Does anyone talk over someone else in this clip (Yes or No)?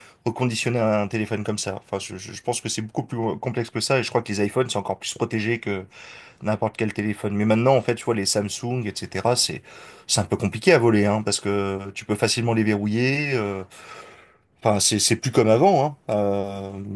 No